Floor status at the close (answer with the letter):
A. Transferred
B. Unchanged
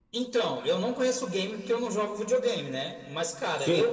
B